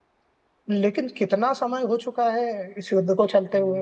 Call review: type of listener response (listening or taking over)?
taking over